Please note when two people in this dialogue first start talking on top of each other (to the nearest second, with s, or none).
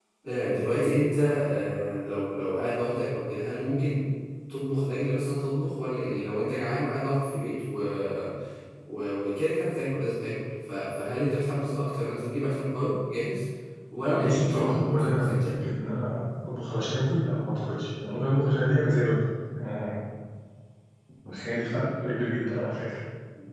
14 s